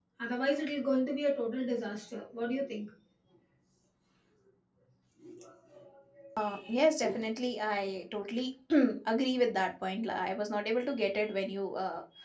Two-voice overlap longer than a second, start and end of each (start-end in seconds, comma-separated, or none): none